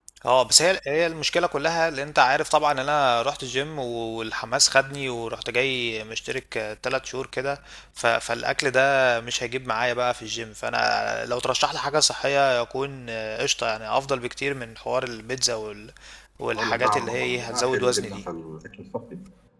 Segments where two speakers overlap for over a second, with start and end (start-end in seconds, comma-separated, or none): 16.6-18.2